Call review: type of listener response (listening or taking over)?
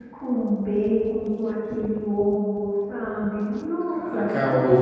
taking over